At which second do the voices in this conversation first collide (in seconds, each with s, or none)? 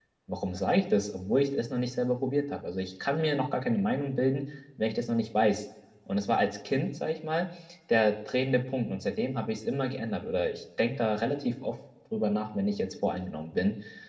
none